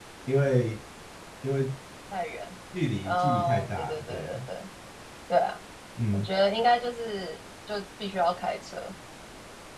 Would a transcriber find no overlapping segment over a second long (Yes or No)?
No